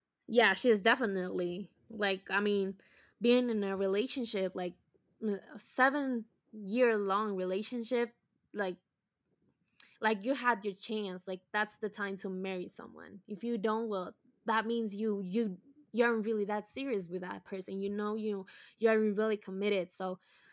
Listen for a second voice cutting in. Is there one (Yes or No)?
No